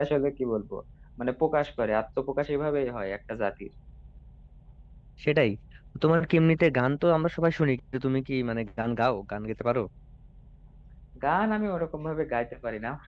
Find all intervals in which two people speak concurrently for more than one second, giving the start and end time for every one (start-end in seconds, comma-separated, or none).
none